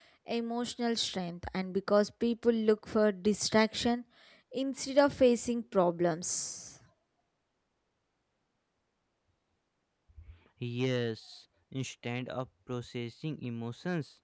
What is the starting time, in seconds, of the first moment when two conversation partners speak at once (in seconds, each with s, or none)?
none